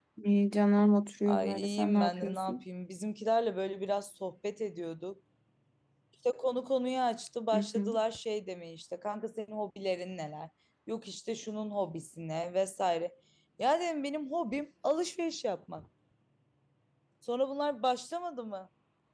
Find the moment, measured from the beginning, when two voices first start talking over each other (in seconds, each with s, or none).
1.3 s